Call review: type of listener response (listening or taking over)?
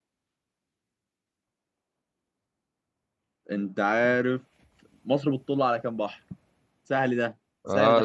taking over